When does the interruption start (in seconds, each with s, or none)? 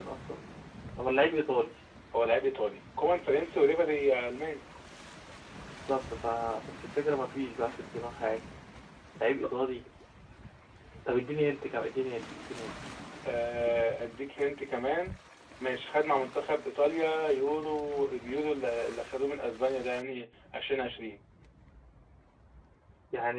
none